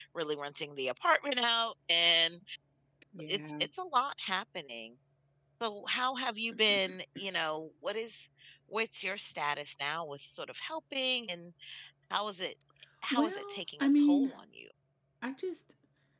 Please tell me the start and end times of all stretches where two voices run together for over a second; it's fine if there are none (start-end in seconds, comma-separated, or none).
13.1-14.3